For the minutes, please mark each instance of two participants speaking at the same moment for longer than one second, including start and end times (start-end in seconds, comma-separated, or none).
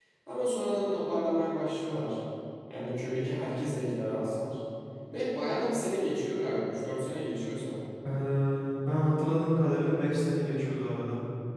none